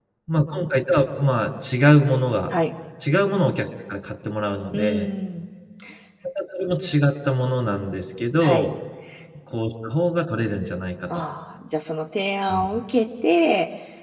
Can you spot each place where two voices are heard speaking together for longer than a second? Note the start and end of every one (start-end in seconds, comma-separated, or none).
none